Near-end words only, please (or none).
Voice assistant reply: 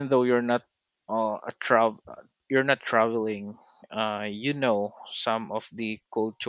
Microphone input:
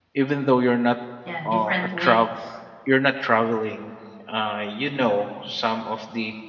Yeah, different ways.